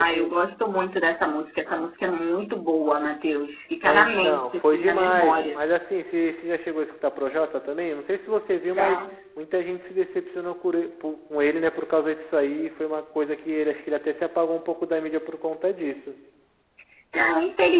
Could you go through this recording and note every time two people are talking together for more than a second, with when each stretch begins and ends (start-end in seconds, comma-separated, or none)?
3.8-5.6